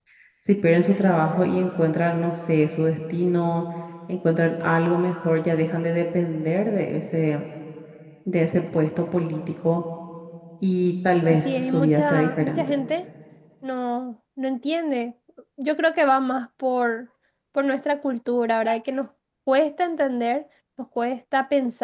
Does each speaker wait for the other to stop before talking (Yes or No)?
No